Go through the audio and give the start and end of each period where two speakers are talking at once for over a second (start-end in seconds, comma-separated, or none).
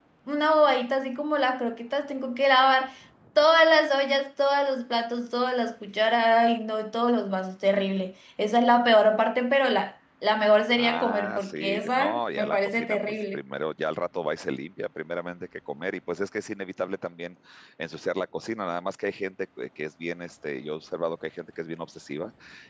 10.8-13.4